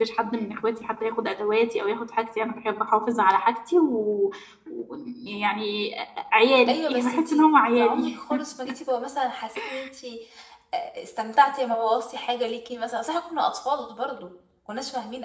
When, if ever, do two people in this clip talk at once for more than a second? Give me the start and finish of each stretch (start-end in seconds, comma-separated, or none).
6.7-8.2